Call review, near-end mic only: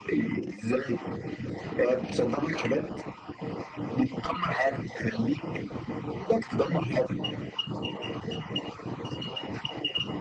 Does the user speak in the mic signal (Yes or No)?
No